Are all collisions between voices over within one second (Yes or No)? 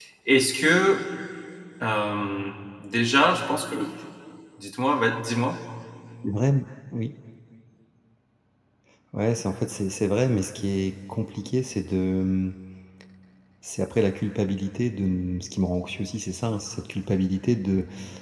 Yes